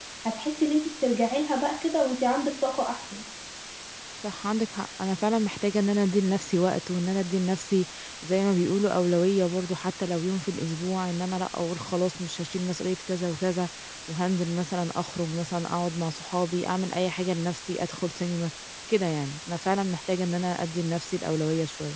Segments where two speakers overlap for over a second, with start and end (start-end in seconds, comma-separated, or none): none